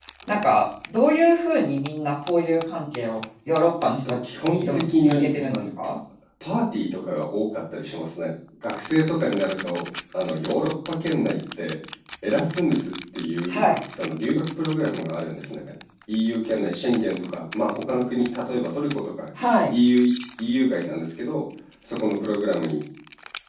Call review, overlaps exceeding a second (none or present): present